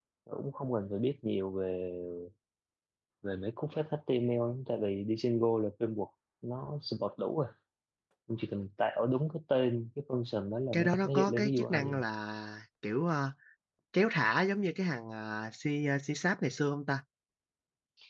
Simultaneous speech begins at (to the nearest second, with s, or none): 11 s